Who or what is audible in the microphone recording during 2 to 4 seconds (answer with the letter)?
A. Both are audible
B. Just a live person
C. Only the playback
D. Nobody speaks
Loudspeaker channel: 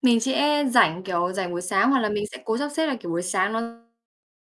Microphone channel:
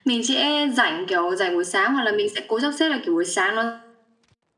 C